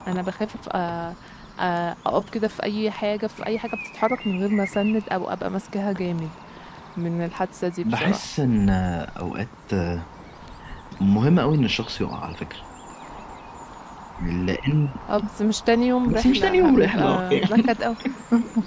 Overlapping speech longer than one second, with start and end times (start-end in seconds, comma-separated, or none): 16.1-17.8